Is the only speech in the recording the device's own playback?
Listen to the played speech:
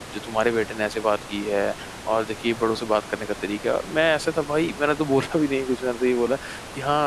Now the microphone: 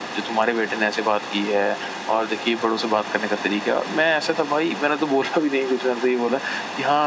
Yes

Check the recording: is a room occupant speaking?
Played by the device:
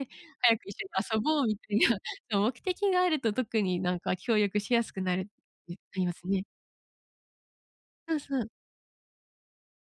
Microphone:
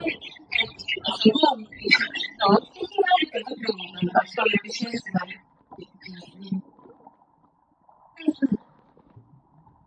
No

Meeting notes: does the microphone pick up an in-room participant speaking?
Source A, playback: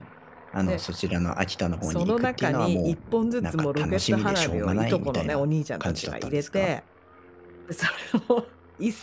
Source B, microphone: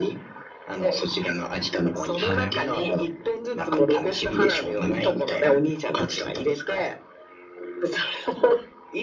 Yes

